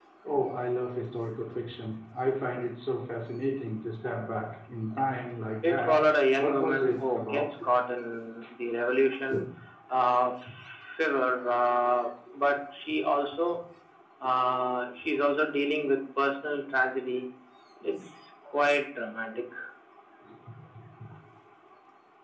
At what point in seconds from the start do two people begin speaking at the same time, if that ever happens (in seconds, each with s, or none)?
5.6 s